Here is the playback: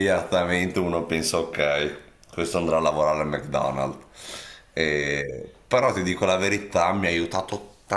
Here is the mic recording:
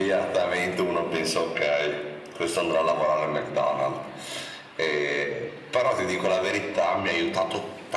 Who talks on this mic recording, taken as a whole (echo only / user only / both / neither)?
echo only